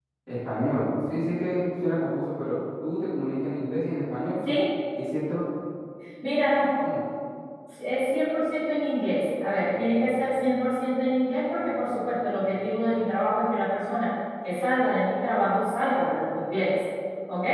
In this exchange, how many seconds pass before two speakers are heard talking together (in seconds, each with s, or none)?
none